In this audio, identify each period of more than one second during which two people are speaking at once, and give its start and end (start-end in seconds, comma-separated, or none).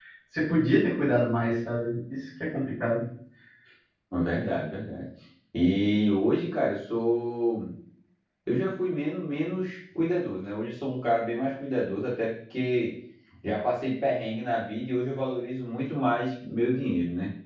none